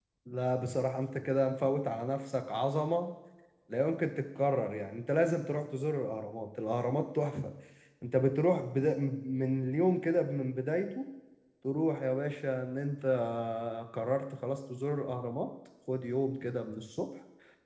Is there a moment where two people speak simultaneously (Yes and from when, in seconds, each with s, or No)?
No